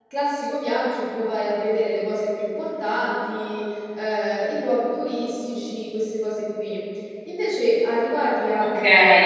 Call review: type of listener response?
taking over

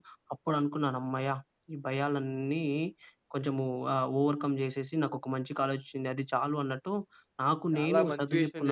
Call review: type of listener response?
taking over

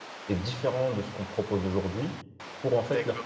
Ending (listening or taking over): listening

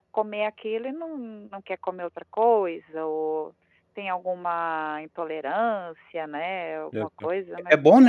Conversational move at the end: taking over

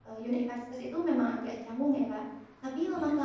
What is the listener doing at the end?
listening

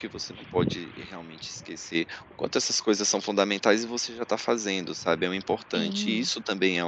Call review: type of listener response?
listening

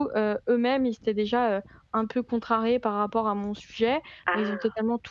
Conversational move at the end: listening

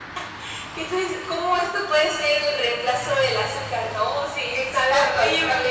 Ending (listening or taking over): taking over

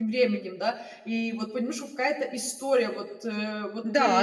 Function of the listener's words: taking over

